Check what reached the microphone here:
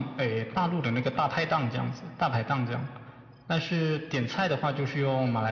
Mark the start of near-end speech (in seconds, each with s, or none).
none